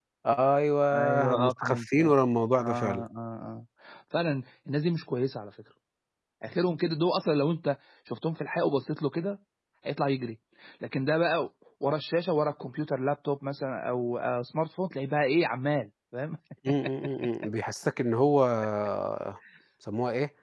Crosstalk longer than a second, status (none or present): present